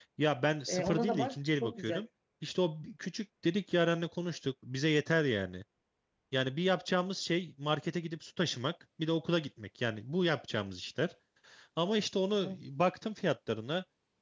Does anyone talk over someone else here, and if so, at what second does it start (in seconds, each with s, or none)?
0.7 s